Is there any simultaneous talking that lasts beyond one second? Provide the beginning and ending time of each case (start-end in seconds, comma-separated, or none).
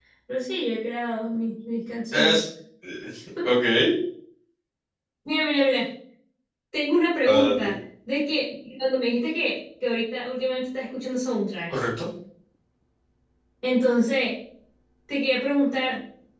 none